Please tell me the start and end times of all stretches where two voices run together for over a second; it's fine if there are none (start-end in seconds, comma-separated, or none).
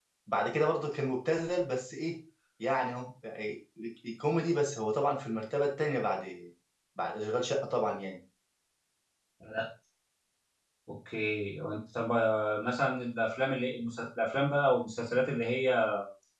none